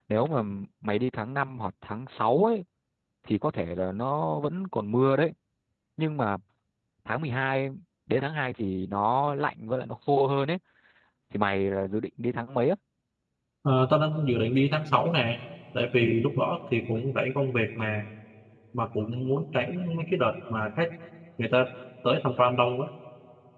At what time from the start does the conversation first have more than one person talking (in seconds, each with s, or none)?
none